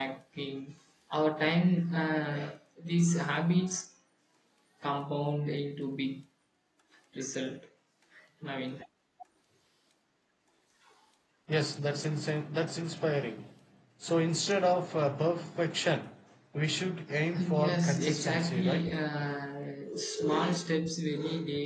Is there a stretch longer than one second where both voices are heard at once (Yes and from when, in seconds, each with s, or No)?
Yes, from 17.4 s